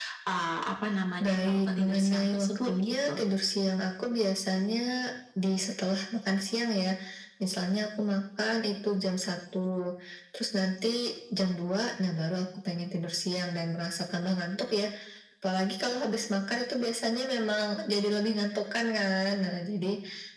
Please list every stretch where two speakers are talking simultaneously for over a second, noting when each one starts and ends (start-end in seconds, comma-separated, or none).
1.2-3.2